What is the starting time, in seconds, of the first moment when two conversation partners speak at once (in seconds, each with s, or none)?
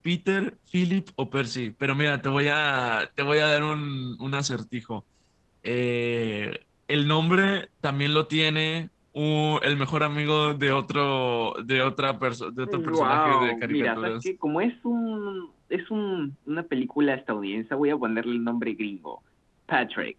12.7 s